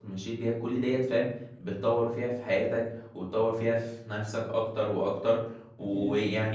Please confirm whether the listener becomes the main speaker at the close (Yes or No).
No